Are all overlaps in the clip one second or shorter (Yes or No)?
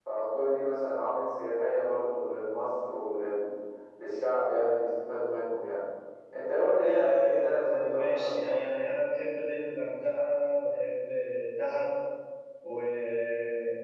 No